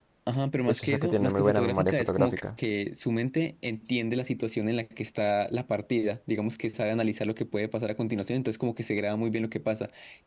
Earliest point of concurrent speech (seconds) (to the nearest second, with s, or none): 1 s